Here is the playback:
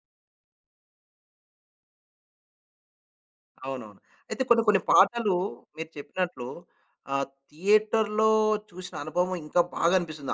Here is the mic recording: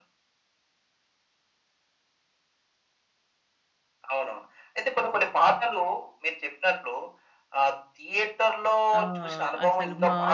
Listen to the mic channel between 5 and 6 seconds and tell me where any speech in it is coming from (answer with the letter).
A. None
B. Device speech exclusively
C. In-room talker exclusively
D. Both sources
B